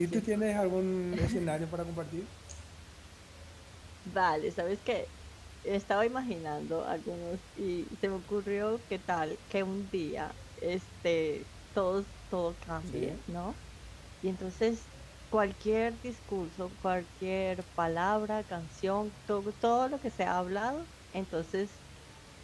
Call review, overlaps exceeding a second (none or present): none